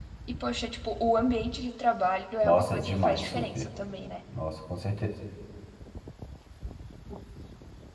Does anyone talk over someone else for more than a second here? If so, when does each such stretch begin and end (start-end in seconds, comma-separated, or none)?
2.4-3.7